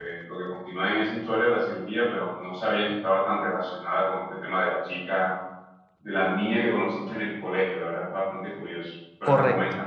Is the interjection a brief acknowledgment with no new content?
No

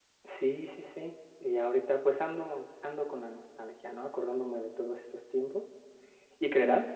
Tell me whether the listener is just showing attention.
Yes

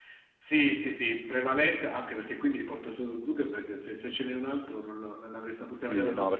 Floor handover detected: Yes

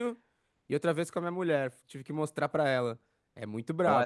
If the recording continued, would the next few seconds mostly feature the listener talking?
Yes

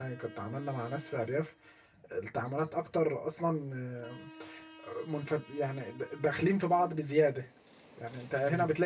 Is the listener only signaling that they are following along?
Yes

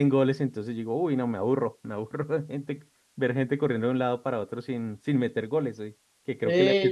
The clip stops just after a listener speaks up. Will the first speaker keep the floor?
Yes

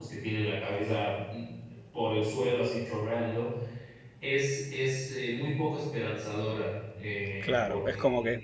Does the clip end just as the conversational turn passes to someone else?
Yes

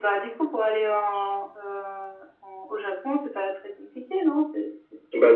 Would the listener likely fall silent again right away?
No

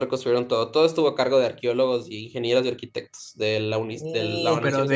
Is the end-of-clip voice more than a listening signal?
Yes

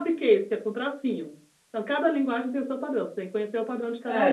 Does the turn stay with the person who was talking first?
No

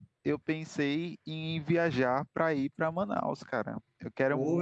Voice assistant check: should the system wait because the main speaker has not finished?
Yes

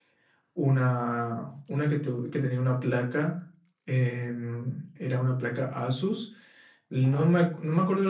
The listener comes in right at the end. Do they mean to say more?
No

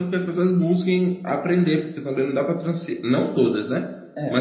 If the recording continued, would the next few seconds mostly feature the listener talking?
No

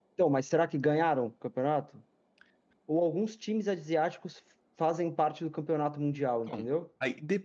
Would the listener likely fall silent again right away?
No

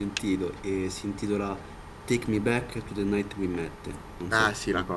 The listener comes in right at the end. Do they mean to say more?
Yes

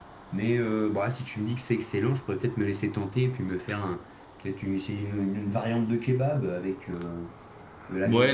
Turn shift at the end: Yes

